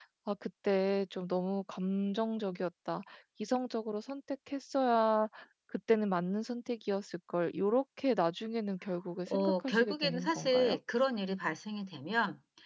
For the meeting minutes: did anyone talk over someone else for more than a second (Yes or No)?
Yes